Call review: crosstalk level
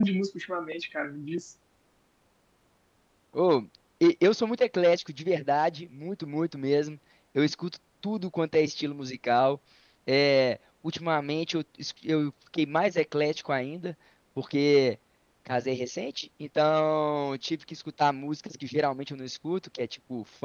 none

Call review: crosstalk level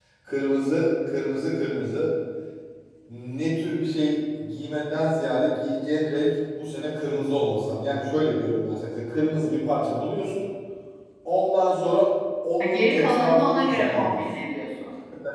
present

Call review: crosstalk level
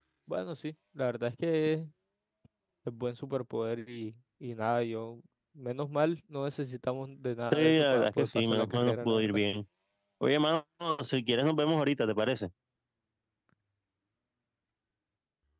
present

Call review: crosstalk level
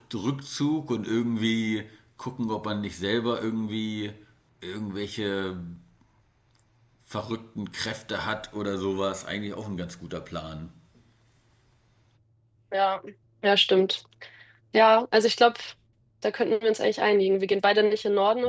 none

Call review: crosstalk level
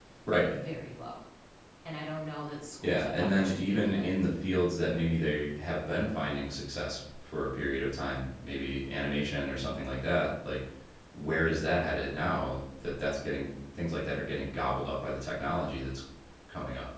present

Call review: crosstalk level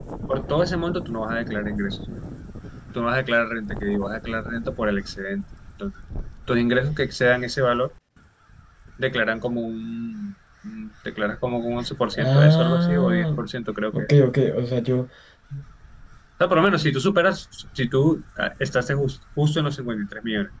present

